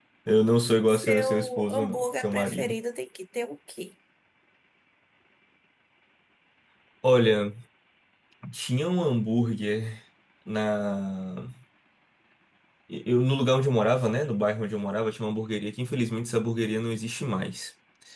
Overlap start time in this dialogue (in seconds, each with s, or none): 0.9 s